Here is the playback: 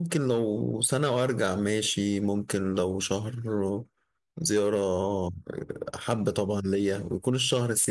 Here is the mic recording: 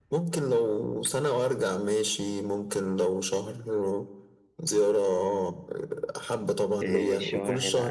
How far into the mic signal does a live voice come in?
7 s

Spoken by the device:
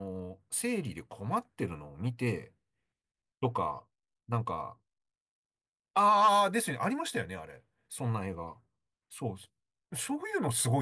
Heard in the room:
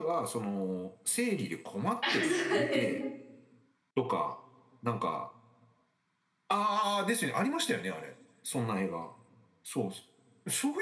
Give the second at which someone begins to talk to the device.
2 s

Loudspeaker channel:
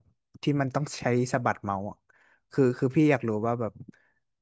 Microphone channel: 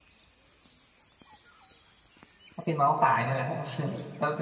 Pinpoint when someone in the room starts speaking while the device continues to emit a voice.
3 s

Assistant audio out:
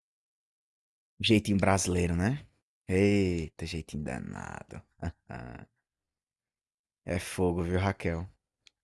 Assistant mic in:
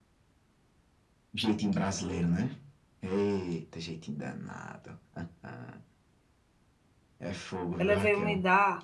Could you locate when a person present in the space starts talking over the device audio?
8 s

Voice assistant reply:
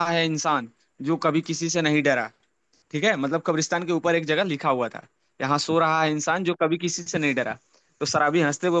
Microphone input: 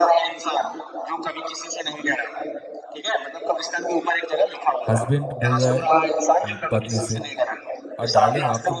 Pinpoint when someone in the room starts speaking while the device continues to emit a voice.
5 s

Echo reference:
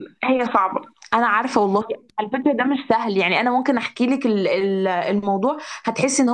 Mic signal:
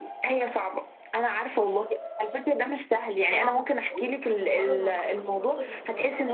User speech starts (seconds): 3 s

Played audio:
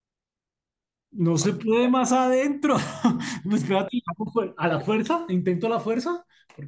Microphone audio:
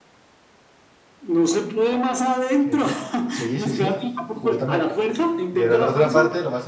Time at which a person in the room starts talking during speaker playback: 3 s

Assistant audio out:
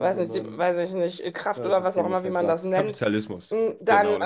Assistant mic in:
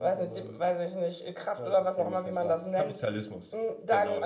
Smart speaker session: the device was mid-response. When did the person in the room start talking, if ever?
none

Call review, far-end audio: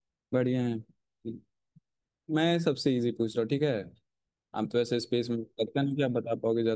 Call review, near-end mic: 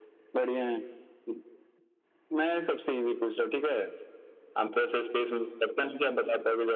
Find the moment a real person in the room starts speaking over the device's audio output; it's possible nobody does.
none

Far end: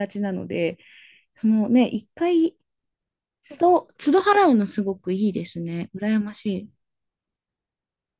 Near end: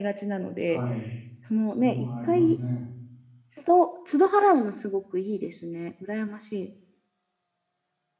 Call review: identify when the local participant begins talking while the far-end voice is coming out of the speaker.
1 s

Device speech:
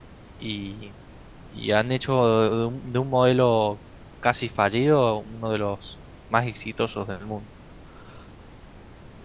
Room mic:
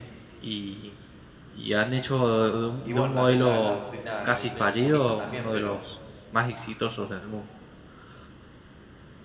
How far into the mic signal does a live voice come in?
3 s

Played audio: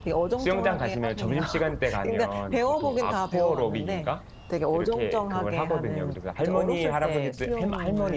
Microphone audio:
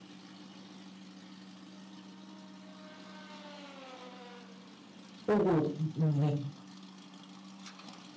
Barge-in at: 5 s

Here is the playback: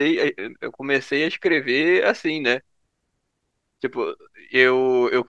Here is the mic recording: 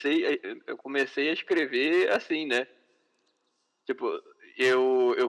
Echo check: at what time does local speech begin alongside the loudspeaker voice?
none

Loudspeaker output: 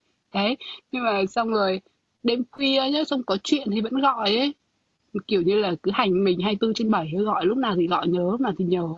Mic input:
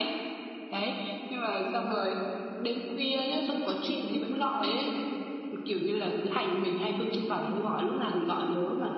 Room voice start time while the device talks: none

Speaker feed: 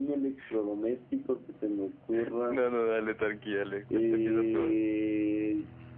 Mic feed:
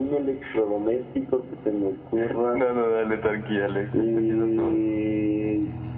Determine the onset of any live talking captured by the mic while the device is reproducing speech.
none

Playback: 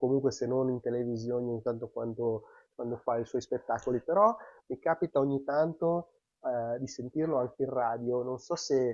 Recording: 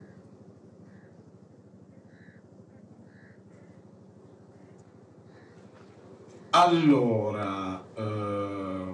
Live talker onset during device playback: 6 s

